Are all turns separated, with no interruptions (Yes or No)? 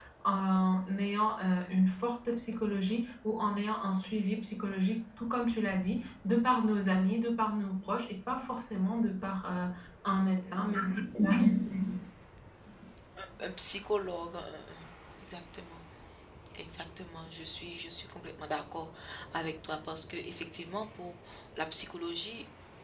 Yes